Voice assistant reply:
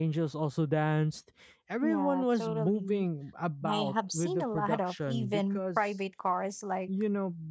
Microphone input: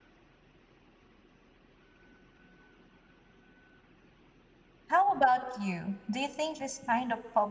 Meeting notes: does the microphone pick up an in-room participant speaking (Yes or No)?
Yes